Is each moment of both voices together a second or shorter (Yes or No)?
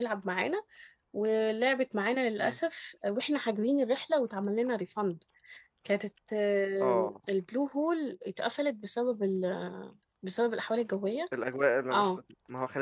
Yes